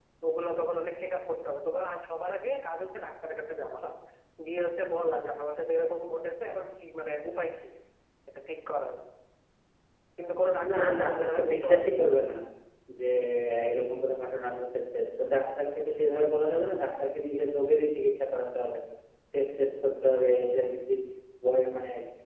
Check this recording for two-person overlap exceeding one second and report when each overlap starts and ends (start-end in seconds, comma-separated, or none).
10.7-12.0